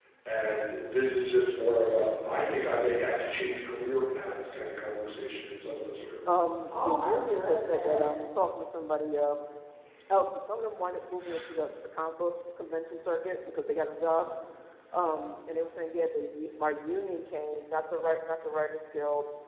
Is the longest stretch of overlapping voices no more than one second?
No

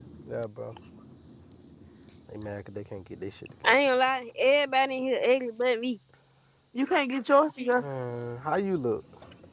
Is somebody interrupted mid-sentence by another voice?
No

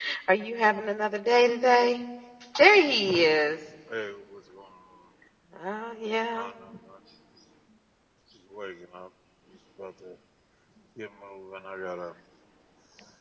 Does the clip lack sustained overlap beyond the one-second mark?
Yes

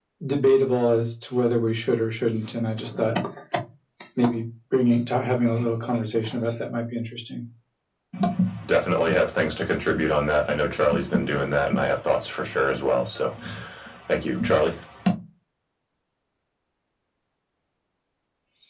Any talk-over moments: No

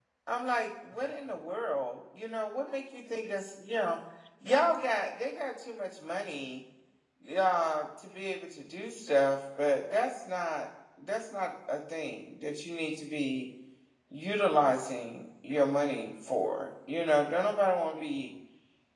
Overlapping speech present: No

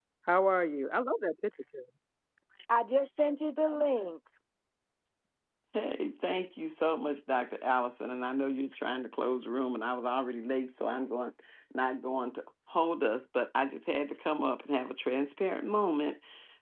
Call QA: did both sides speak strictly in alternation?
Yes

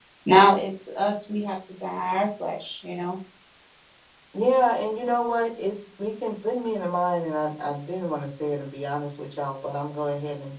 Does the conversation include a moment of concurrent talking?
No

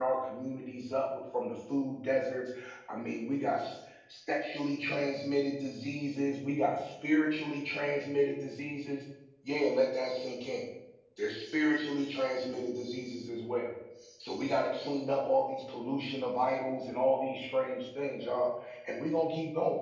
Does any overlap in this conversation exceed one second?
No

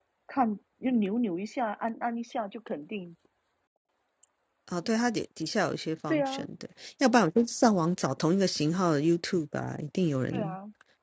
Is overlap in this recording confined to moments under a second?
Yes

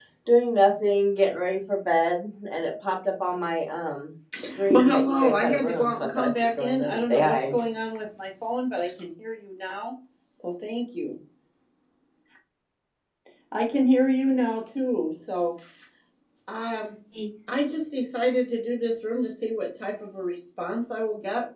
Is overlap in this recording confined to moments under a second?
No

